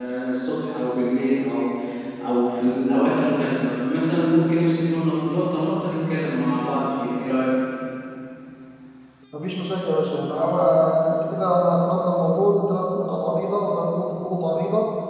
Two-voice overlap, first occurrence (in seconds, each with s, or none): none